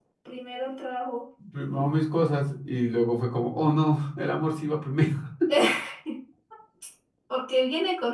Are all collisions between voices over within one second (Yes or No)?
Yes